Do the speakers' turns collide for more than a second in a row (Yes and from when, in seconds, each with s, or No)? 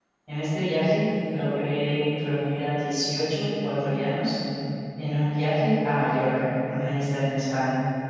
No